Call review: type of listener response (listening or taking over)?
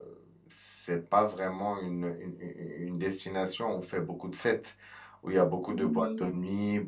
listening